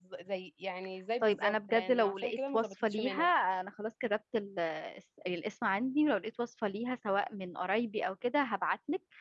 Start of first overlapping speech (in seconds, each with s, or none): 1.2 s